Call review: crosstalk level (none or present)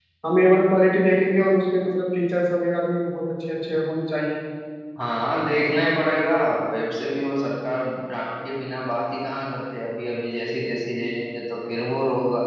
none